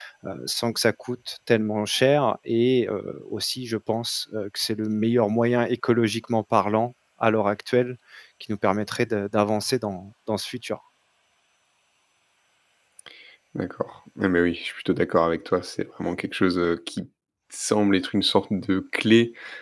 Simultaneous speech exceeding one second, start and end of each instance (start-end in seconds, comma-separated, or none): none